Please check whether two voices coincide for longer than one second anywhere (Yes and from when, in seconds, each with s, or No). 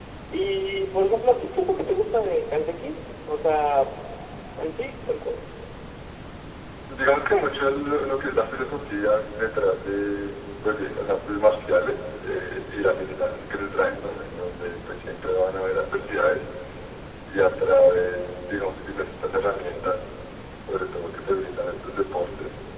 No